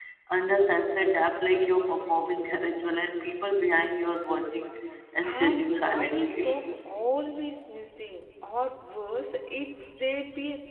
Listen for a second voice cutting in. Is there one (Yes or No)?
Yes